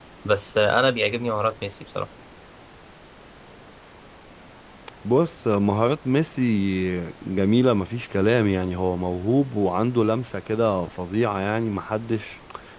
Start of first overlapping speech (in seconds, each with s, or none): none